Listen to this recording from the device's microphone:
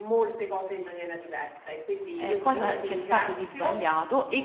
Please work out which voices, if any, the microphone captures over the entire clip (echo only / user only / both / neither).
both